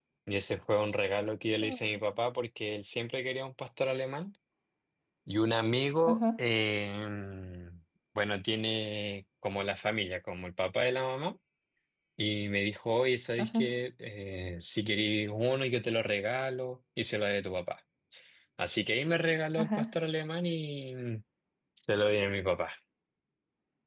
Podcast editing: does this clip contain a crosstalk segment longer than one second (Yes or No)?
No